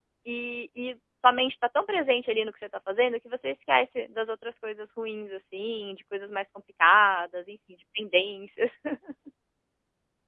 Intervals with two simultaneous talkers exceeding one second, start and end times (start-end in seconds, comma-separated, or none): none